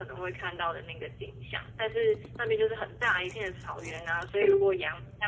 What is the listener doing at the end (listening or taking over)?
listening